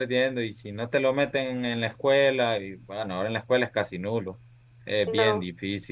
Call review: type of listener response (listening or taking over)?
listening